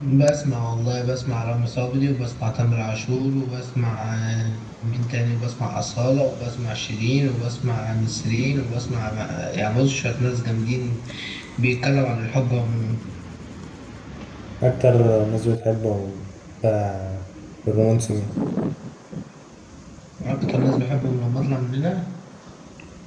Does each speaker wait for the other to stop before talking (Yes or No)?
Yes